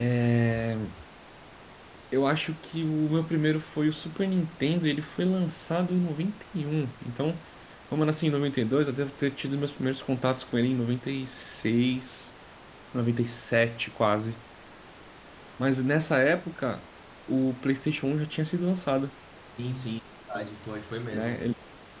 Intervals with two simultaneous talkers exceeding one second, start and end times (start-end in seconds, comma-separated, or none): none